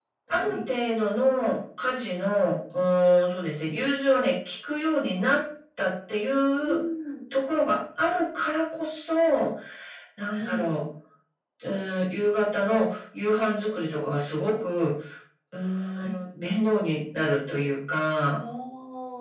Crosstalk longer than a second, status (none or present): none